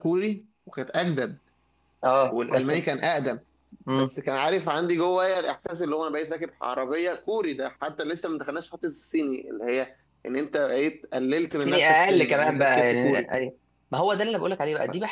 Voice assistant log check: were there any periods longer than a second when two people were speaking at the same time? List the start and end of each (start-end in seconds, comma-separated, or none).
11.5-13.3